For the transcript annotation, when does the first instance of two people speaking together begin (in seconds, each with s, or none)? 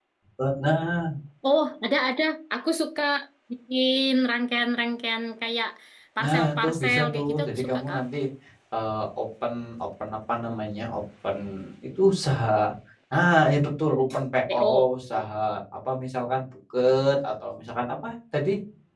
6.2 s